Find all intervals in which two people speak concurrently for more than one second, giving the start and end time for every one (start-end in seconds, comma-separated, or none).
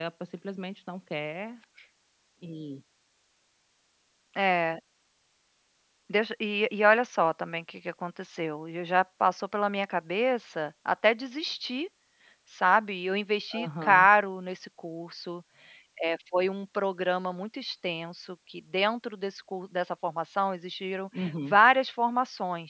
none